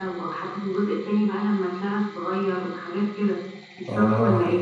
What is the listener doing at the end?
taking over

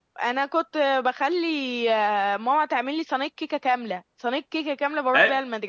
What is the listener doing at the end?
taking over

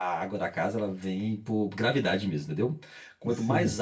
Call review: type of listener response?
listening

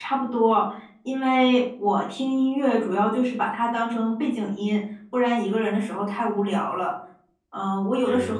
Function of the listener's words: listening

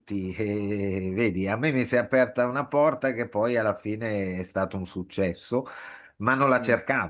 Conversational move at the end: listening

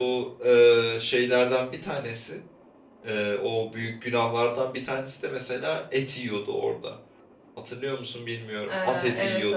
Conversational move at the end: taking over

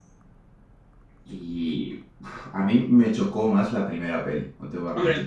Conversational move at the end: taking over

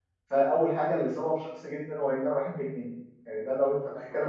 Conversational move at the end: listening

